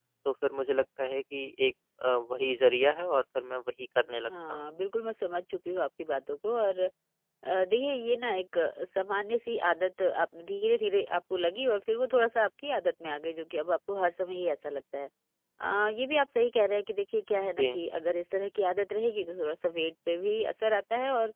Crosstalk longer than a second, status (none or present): none